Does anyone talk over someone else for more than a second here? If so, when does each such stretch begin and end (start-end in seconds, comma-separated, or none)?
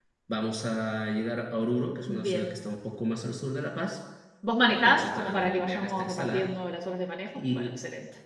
4.7-6.5